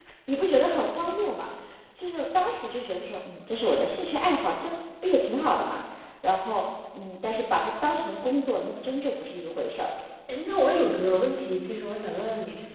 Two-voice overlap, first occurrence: none

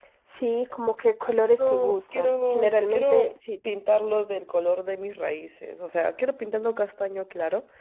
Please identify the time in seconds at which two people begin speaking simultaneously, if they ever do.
2 s

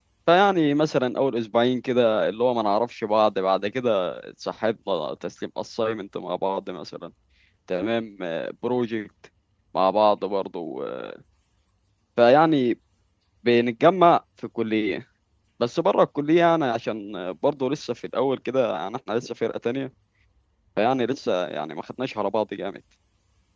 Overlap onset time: none

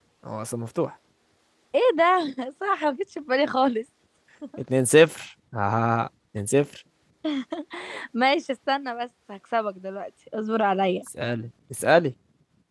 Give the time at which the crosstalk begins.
none

